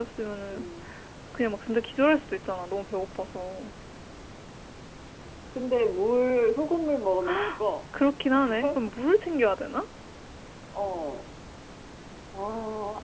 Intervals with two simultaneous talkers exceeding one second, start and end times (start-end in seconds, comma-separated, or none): none